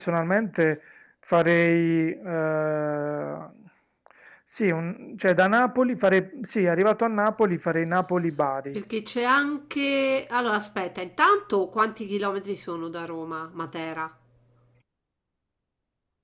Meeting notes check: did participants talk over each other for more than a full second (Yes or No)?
No